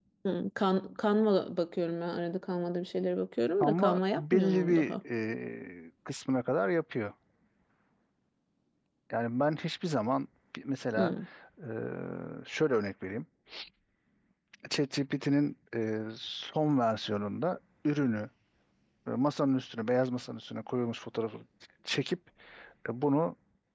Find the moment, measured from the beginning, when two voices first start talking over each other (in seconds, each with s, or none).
3.6 s